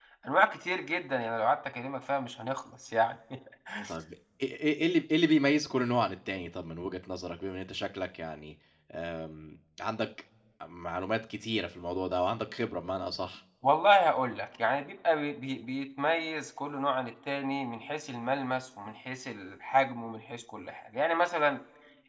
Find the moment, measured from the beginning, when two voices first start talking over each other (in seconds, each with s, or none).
none